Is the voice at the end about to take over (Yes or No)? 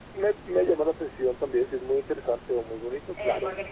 Yes